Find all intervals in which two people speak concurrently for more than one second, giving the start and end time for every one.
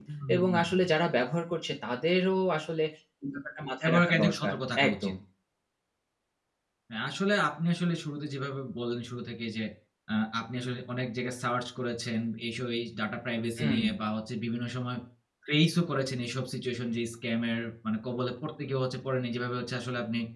3.8-5.1

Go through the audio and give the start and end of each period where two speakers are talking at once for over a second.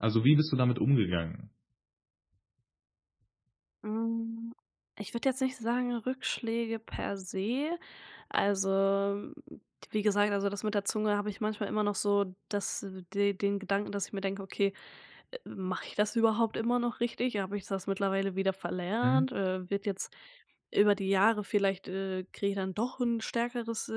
none

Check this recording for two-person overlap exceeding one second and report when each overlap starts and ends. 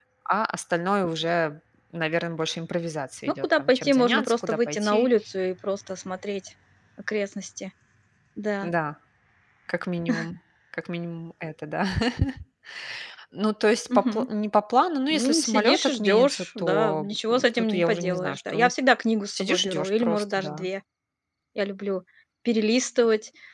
3.4-5.1, 15.1-18.7, 19.3-20.7

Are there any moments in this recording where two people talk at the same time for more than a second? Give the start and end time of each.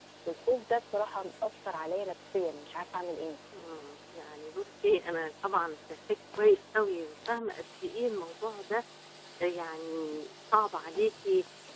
none

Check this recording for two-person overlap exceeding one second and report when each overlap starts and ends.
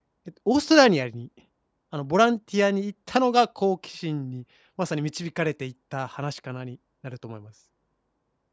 none

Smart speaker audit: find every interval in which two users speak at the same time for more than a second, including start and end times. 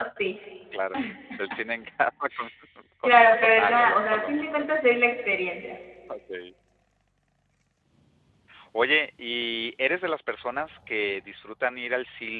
3.0-4.7

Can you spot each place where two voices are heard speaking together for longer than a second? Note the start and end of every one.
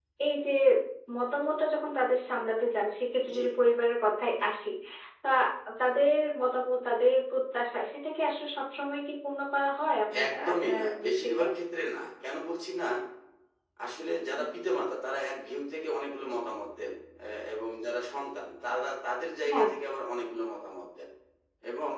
10.2-11.4

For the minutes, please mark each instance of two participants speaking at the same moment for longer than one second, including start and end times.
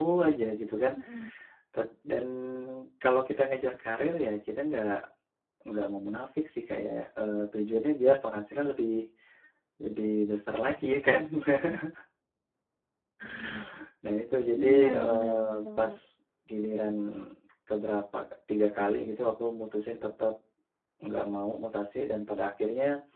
14.6-15.9

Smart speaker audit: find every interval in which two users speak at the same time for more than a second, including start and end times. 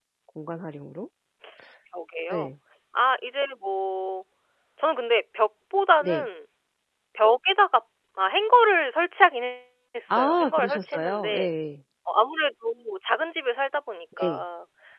10.1-11.5

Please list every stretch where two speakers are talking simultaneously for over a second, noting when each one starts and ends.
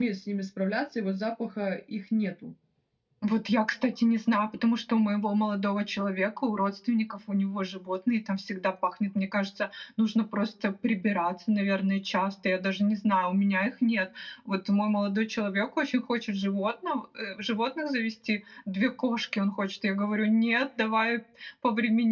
none

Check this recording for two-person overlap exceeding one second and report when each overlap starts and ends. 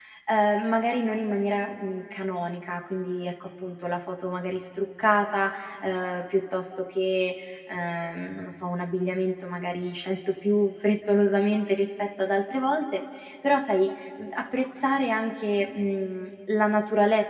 none

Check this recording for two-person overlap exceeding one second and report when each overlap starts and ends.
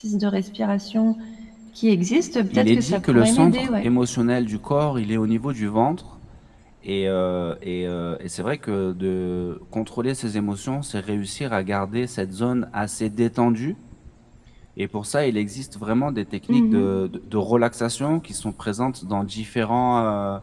2.5-3.8

